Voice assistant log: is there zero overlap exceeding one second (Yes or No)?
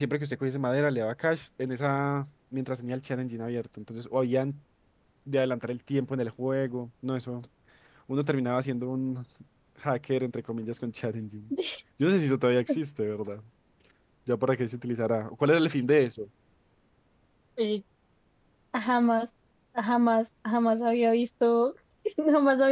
Yes